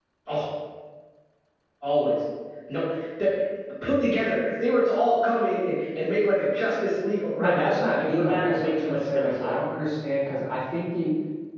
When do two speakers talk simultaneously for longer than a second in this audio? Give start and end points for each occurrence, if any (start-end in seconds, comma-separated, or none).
7.4-9.5